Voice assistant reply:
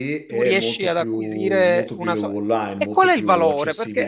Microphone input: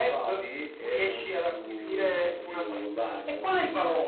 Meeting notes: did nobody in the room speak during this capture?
Yes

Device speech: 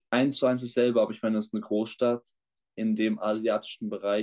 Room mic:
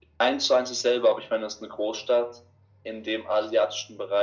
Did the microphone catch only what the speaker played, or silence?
Yes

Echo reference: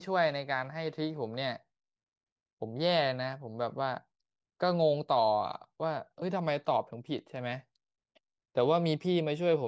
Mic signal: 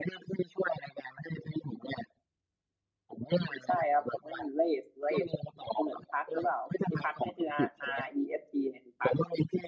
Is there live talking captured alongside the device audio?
Yes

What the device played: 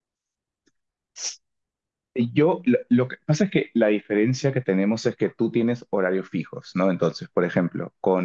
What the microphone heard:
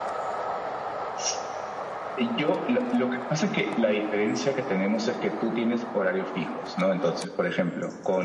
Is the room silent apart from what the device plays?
Yes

